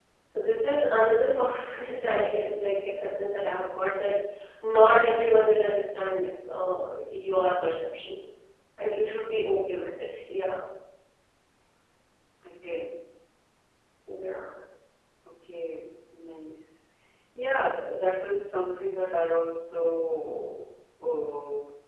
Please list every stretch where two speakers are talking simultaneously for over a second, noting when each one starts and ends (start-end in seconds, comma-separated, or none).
none